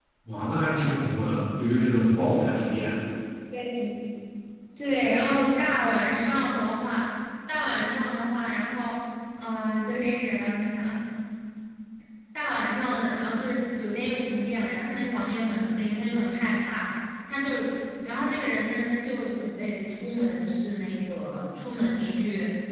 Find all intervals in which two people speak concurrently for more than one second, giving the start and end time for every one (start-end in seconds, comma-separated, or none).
none